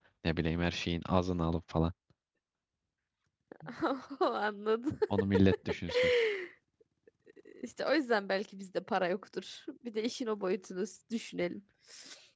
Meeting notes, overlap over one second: none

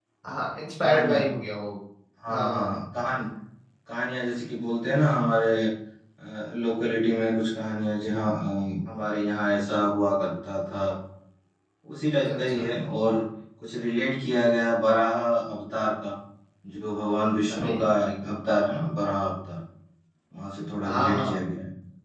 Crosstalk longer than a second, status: none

